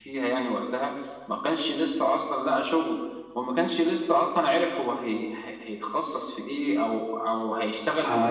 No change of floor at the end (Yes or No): No